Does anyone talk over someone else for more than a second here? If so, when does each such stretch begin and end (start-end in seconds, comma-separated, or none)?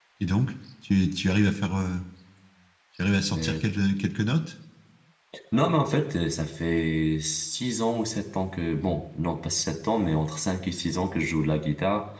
none